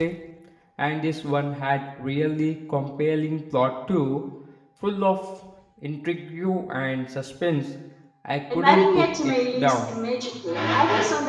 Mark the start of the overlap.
9 s

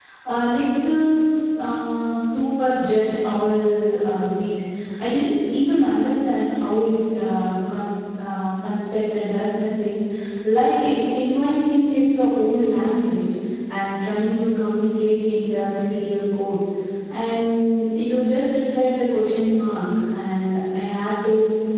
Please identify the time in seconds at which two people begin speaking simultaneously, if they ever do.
none

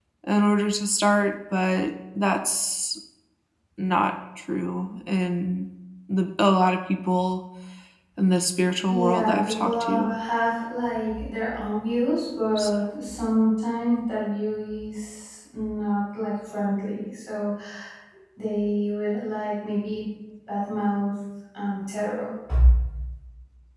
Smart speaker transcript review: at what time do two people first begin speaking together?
9 s

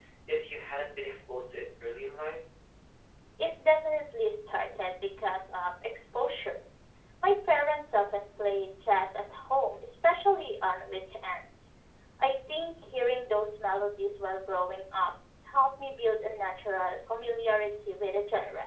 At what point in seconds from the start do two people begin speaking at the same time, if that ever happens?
none

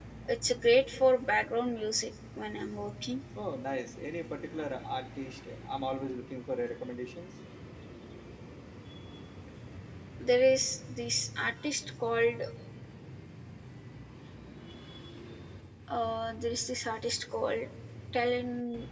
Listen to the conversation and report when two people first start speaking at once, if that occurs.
none

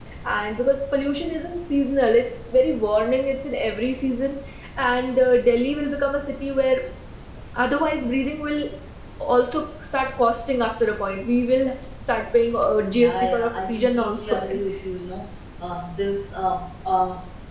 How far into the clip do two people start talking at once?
13 s

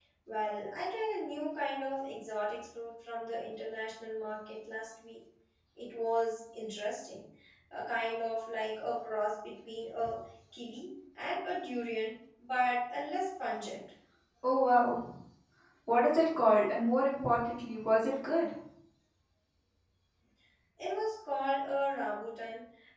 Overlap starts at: none

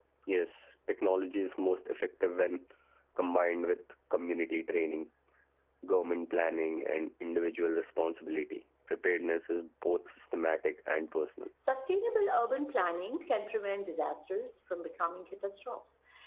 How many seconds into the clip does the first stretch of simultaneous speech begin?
none

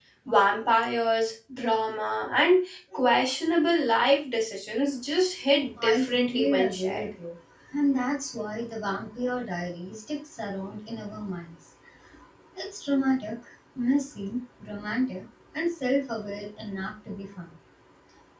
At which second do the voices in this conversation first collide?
6 s

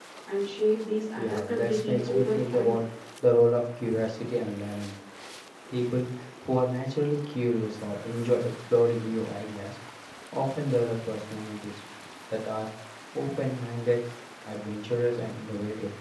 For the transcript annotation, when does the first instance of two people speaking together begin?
1 s

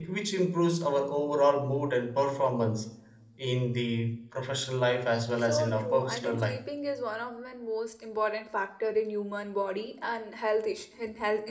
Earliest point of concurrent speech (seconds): 5 s

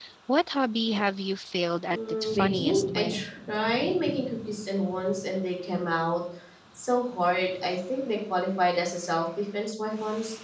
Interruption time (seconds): 2 s

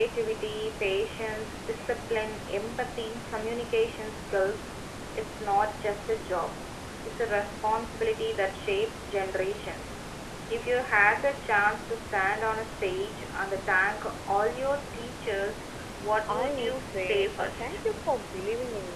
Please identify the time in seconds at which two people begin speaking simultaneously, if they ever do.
16 s

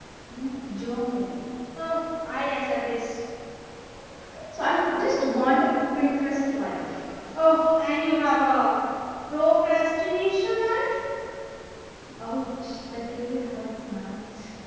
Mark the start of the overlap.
none

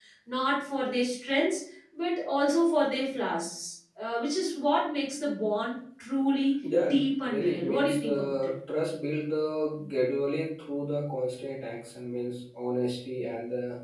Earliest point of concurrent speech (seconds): 7 s

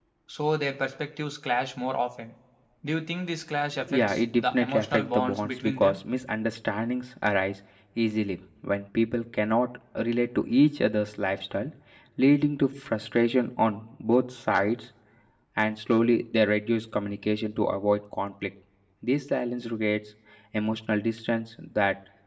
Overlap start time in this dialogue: 4 s

